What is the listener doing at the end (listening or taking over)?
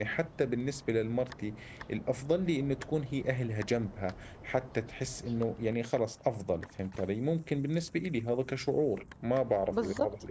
taking over